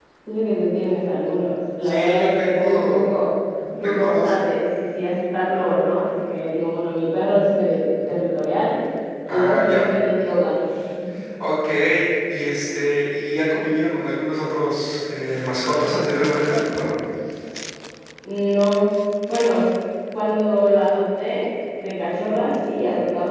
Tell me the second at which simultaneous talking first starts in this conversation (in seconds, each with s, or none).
1.8 s